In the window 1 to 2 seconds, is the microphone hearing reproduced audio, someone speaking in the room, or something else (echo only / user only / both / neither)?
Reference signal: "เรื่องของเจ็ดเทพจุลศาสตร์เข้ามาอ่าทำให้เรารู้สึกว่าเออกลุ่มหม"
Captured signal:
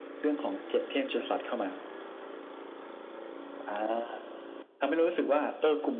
echo only